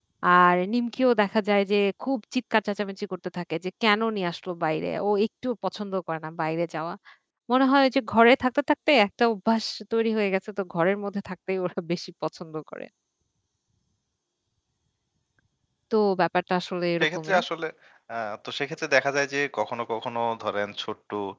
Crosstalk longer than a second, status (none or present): none